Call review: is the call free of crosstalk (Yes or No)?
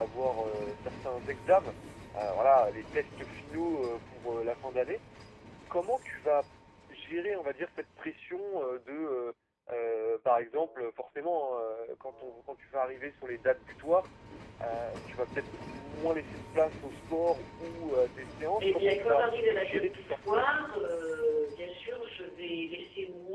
No